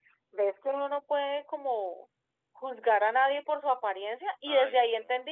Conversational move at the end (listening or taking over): listening